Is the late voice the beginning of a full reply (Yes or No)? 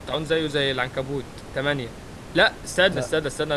No